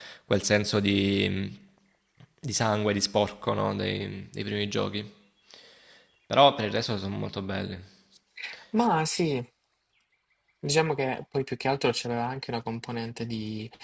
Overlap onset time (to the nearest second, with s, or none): none